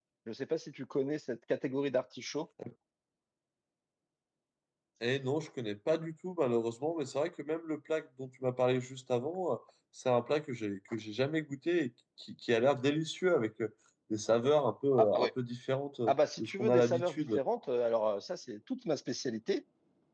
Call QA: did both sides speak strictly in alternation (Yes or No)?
No